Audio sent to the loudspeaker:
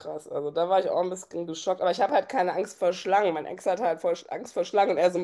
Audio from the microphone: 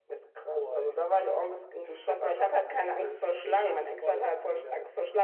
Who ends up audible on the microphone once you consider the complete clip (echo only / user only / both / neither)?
both